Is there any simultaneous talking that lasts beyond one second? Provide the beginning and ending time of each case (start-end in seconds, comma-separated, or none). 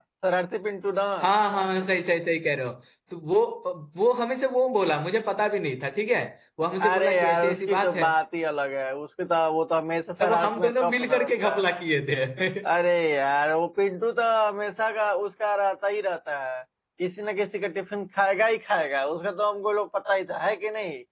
6.9-8.1, 10.2-11.6